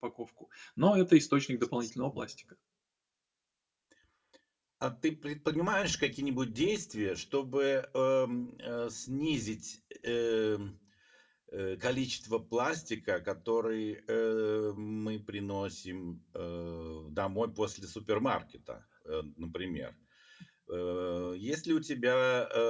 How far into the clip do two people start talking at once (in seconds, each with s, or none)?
none